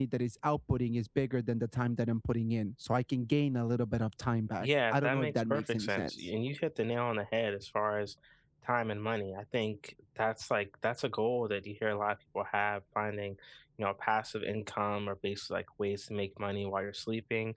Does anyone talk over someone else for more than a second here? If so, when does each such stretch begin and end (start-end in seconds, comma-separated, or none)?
4.6-6.1